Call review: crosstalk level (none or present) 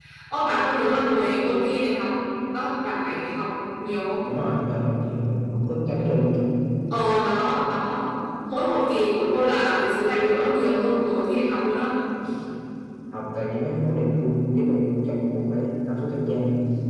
none